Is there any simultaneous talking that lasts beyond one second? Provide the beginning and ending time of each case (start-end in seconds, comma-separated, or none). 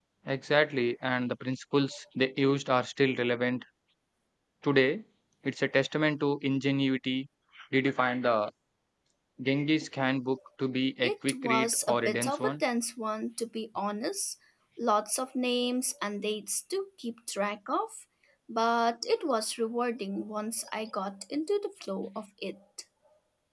11.0-12.6